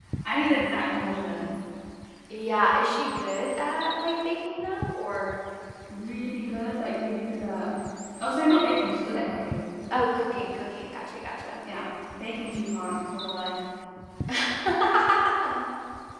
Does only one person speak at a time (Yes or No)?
Yes